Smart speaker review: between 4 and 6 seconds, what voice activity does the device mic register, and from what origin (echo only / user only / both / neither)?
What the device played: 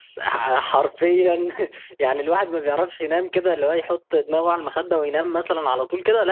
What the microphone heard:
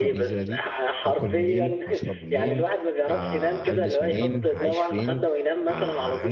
both